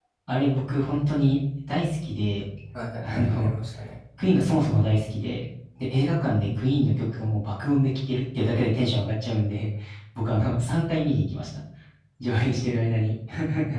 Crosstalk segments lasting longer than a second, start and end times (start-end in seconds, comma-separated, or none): none